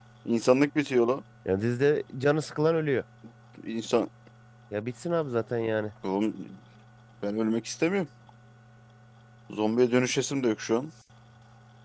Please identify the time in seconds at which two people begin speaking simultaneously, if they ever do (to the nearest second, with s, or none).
none